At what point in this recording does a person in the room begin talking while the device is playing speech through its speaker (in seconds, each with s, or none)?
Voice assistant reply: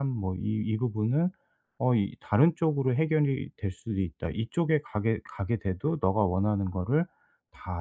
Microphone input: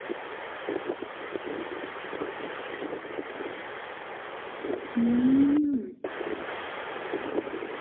4.9 s